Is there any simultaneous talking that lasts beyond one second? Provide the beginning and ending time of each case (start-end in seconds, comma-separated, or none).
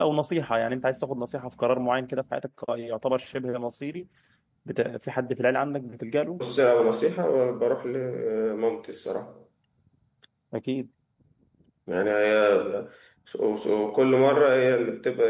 none